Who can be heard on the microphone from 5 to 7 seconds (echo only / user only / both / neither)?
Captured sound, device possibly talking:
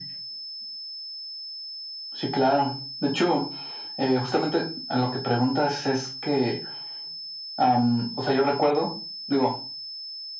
echo only